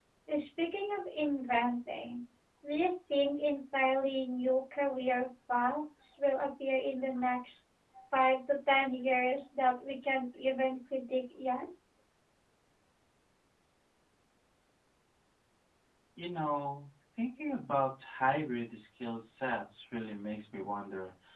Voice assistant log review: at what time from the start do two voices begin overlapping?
none

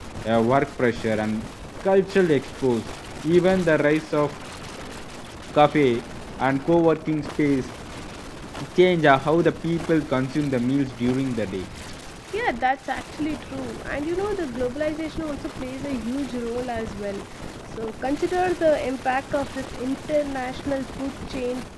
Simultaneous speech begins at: none

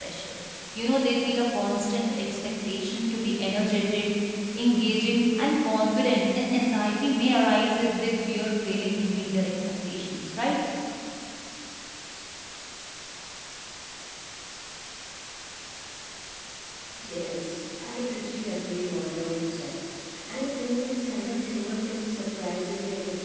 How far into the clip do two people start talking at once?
none

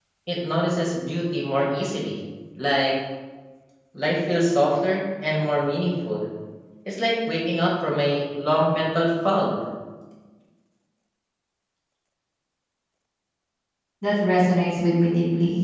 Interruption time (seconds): none

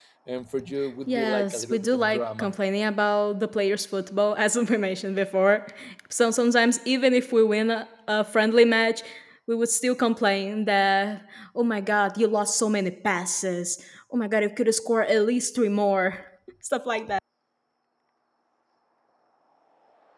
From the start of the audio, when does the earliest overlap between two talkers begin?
1 s

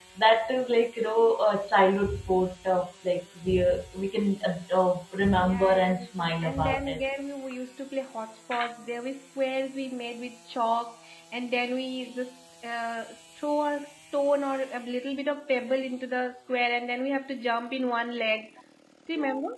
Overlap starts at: 5 s

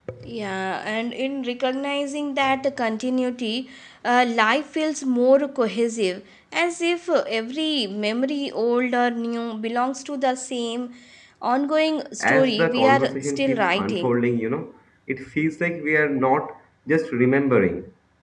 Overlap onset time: 12 s

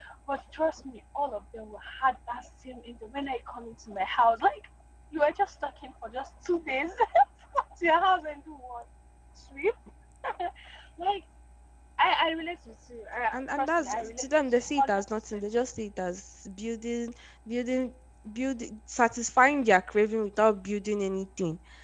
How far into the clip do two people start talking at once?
13 s

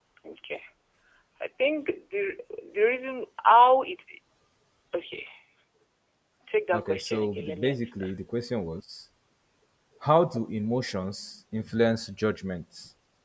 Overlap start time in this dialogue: 7 s

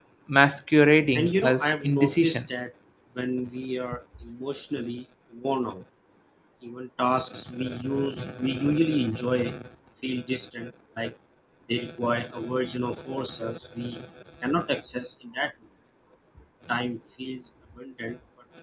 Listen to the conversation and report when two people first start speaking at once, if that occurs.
1 s

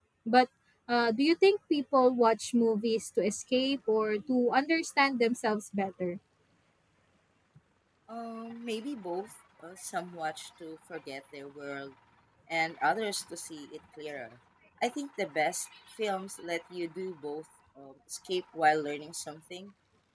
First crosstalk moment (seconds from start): none

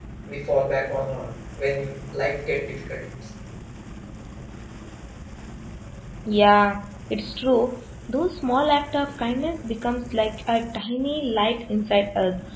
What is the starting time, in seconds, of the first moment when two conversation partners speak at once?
none

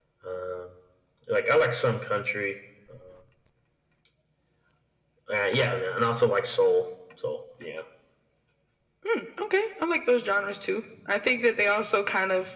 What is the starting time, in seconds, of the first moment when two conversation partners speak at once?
none

